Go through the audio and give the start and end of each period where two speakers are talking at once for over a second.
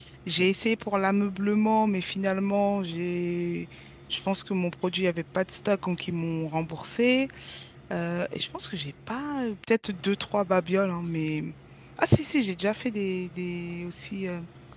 none

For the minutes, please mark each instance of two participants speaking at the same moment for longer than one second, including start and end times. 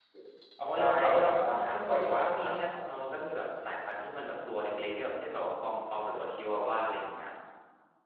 0.8-2.5

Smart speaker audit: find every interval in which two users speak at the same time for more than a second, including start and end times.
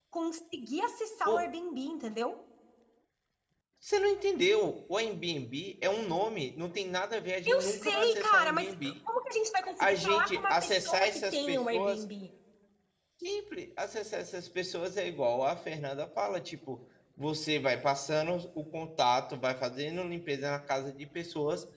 7.5-9.0, 9.8-12.0

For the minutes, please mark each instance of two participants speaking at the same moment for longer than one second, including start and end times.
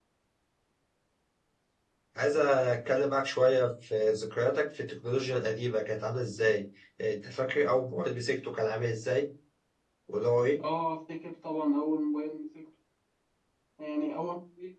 none

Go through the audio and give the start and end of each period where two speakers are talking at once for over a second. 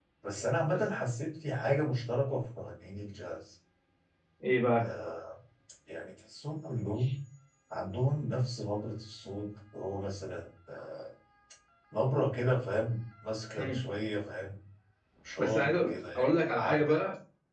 15.4-16.9

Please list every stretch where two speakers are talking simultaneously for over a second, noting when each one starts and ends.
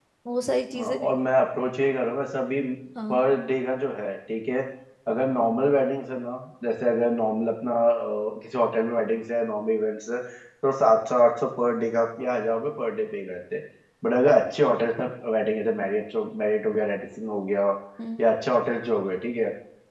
none

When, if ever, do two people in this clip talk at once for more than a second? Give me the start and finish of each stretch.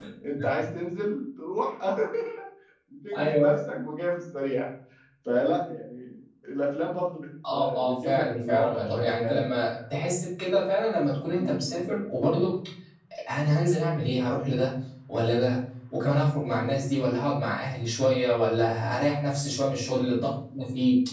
7.5-9.5

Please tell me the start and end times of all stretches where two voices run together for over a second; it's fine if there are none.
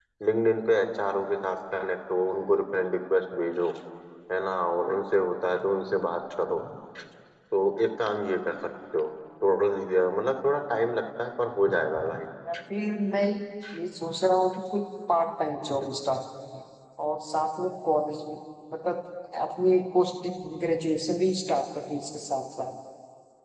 none

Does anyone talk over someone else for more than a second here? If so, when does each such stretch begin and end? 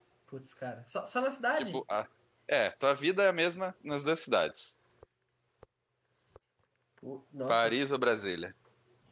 none

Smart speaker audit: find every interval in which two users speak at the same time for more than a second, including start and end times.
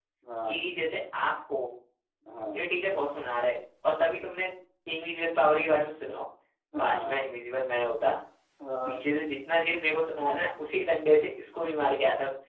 none

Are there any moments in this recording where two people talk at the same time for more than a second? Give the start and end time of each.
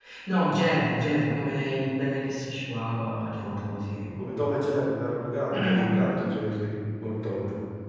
none

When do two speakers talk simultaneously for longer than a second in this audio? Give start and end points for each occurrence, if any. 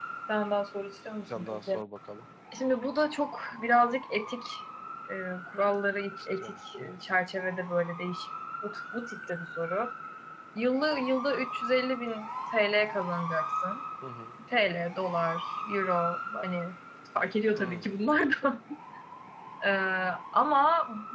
none

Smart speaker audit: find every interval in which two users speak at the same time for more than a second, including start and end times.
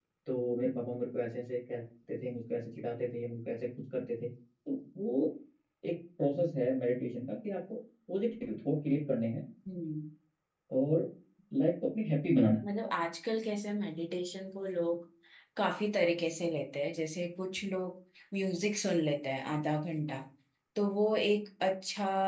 none

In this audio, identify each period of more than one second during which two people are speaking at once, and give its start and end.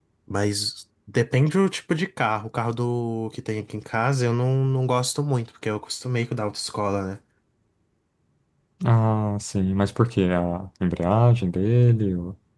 none

